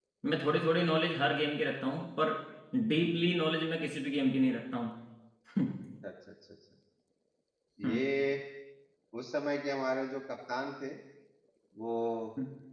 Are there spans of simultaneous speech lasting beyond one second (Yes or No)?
No